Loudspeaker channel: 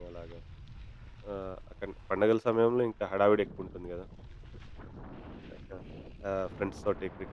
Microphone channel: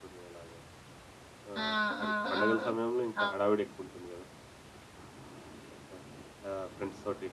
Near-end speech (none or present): present